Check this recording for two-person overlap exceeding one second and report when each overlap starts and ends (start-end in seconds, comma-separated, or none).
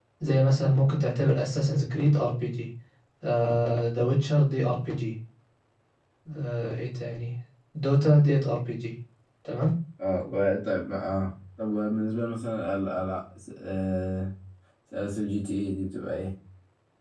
none